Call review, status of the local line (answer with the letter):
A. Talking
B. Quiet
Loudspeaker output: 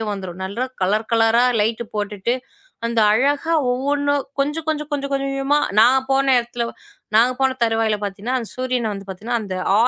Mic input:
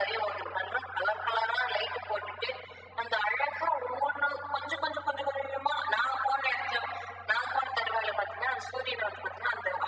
B